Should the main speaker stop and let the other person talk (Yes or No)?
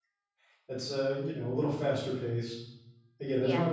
No